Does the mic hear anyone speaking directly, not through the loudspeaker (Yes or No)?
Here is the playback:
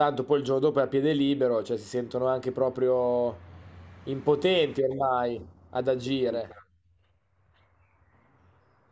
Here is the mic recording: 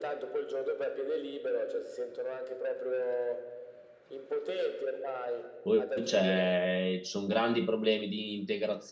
Yes